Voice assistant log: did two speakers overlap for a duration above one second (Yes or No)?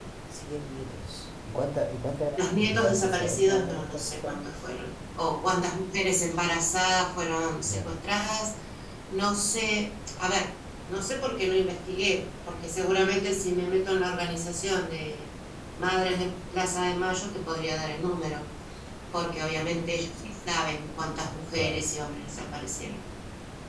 Yes